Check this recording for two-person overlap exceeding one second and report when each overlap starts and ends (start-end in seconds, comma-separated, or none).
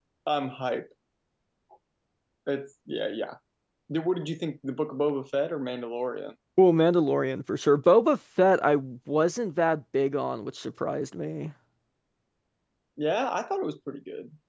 none